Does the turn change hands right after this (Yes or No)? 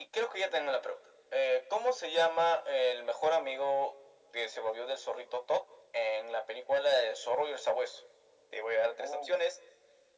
No